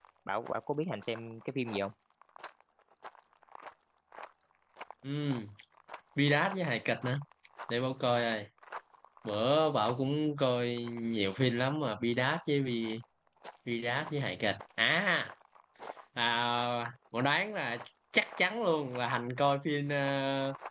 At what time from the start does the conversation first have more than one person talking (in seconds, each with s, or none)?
none